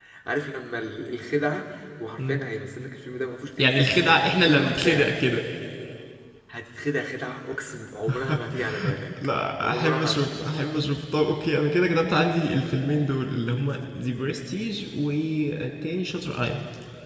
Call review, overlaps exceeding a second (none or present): present